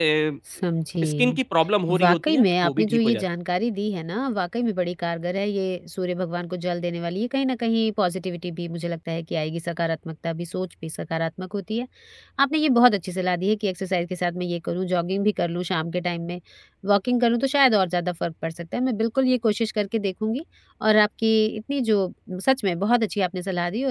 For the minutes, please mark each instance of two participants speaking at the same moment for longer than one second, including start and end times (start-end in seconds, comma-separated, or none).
2.0-3.2